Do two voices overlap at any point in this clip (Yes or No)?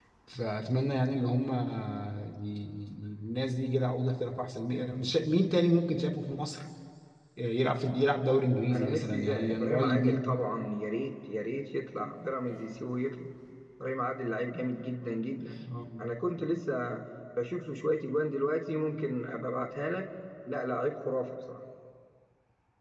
Yes